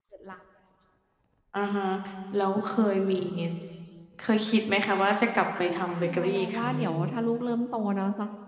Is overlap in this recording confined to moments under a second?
No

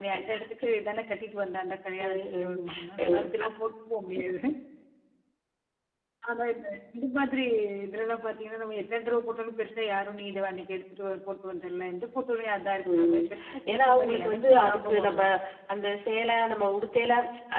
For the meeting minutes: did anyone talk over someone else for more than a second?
Yes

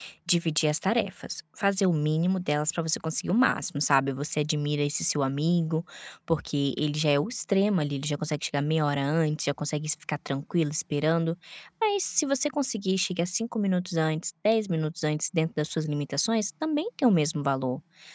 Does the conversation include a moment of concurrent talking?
No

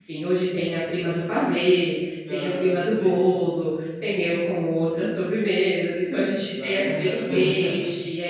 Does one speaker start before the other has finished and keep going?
Yes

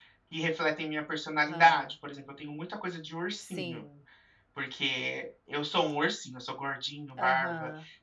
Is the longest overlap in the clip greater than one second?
No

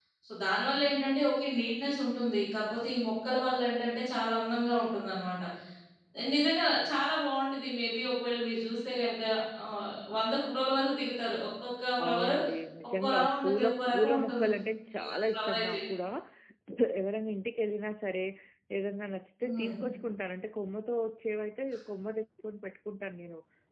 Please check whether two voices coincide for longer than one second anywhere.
Yes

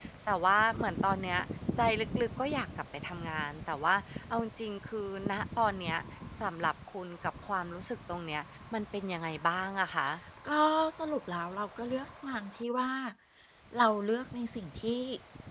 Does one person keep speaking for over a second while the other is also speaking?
No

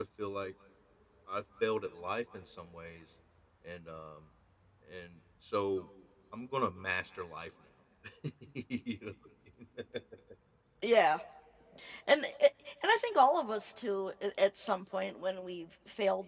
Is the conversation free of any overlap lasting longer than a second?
Yes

